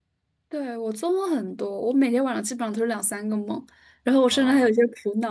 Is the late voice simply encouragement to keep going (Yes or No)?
Yes